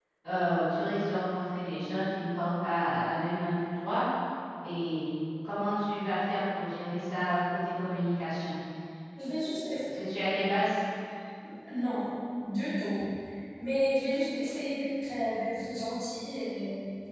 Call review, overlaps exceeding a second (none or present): none